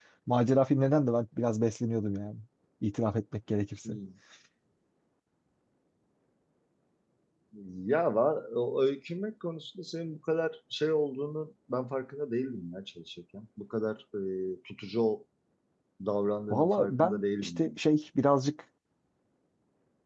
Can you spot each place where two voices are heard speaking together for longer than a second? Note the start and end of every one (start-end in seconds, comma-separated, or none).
16.5-17.8